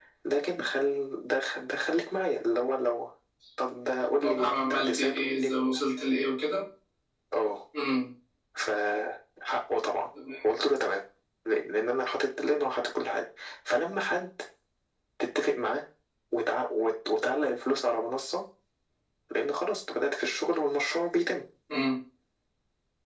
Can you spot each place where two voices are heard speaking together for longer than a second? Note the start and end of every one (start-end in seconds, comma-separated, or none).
4.2-5.5